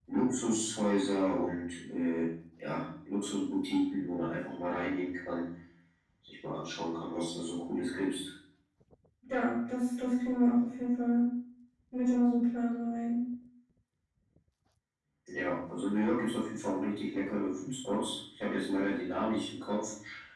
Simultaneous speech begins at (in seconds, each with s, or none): none